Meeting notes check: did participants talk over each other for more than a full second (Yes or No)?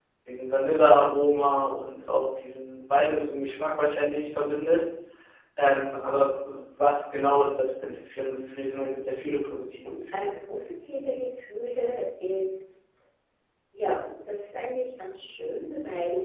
No